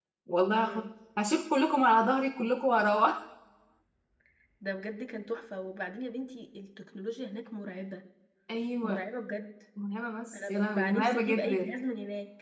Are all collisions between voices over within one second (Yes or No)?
No